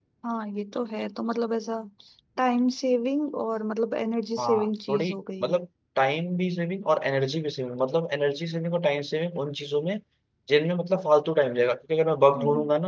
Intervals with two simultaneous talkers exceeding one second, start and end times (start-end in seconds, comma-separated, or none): 4.4-5.6